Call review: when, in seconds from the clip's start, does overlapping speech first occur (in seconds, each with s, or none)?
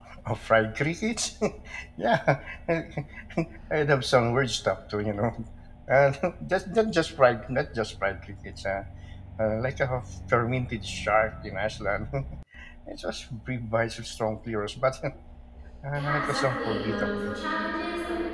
15.9 s